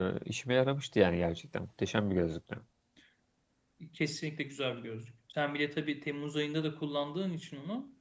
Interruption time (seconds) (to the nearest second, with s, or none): none